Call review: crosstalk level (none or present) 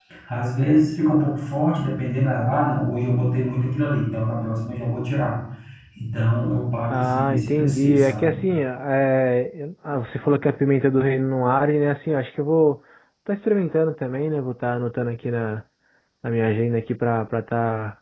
present